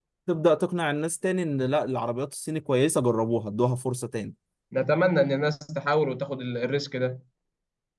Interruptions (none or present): none